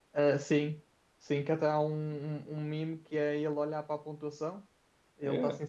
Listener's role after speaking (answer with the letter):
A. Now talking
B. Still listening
B